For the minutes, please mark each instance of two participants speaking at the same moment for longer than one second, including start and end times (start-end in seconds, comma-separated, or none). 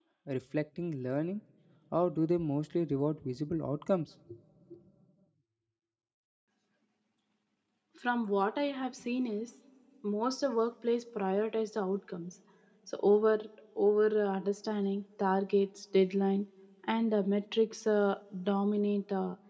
none